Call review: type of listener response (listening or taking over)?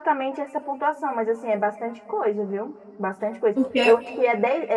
listening